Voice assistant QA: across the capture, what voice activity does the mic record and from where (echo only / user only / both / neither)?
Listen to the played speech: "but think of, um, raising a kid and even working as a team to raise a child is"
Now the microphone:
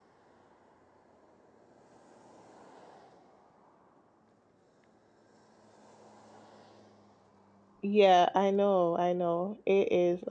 user only